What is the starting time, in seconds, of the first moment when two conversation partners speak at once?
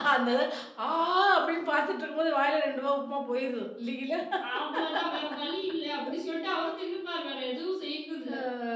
none

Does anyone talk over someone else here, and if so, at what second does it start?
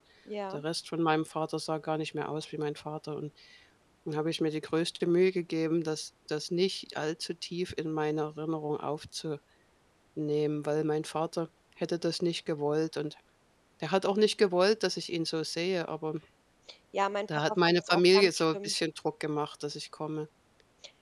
17 s

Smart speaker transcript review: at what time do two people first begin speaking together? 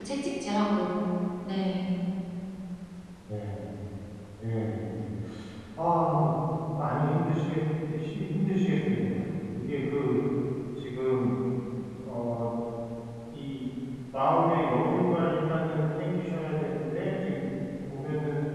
none

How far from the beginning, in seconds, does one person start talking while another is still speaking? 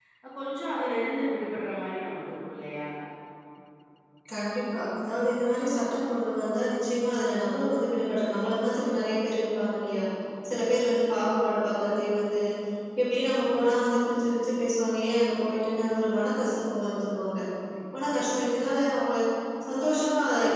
none

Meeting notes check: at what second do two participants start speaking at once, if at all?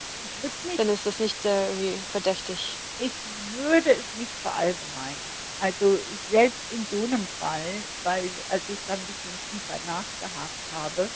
none

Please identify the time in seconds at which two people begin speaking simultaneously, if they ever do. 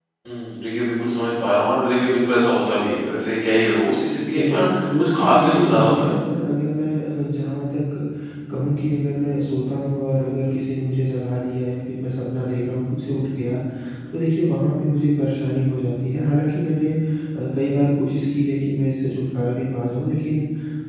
4 s

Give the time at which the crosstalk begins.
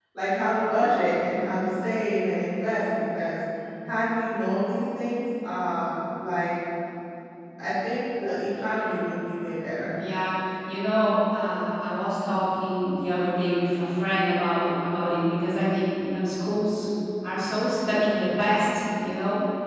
none

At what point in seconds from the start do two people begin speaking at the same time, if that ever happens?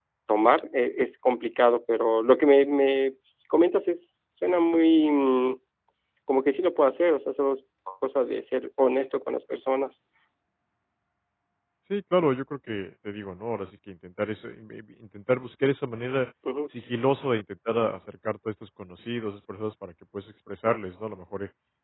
none

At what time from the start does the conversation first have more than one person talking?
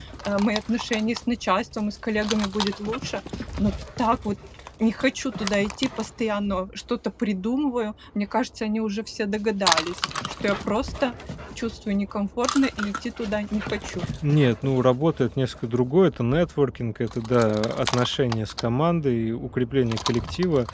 none

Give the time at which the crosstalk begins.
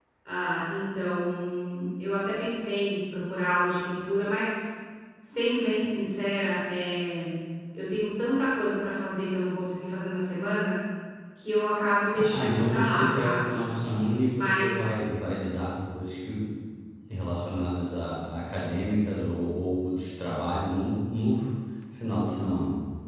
12 s

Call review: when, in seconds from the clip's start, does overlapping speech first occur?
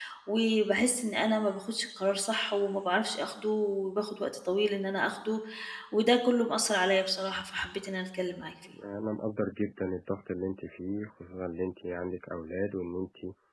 none

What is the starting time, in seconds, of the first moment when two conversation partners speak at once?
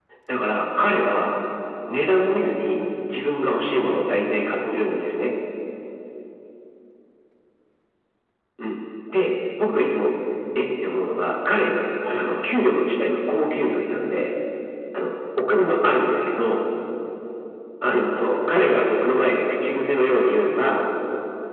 4 s

